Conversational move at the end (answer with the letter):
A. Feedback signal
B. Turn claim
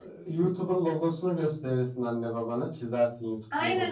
B